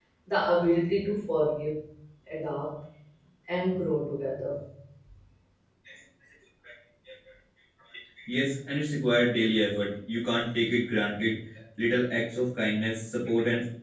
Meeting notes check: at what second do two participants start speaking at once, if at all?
none

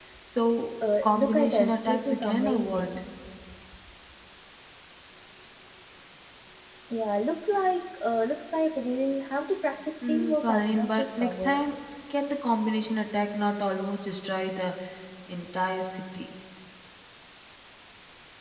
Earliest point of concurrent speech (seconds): 1 s

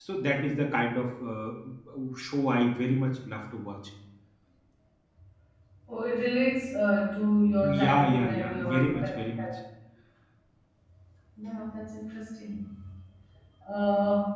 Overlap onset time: 8 s

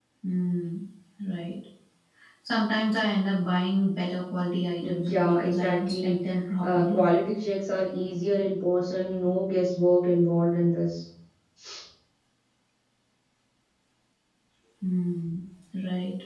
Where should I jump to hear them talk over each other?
5 s

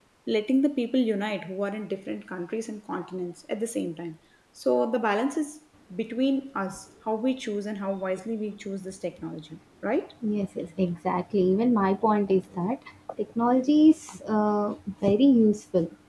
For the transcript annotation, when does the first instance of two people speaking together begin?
none

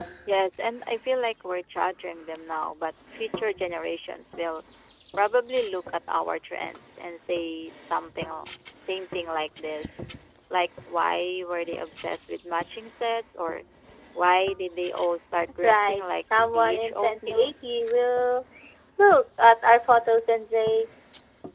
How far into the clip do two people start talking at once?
16 s

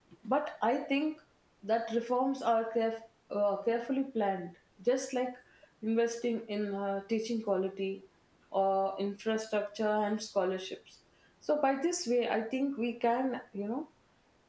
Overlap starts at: none

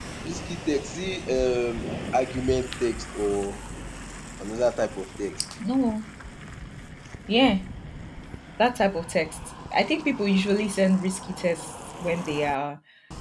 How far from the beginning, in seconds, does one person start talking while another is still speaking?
none

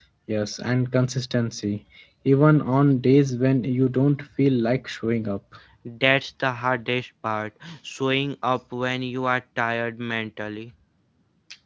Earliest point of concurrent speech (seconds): none

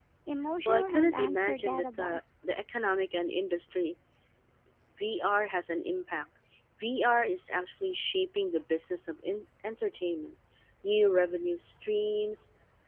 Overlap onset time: 1 s

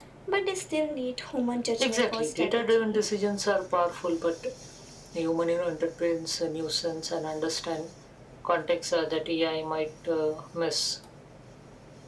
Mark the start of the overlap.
2 s

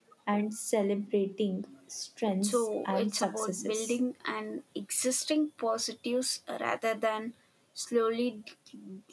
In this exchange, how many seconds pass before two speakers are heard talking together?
2 s

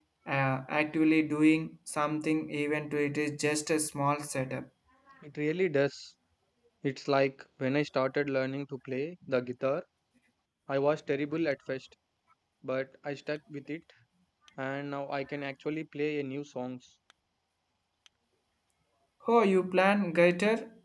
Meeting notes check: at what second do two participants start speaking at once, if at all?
none

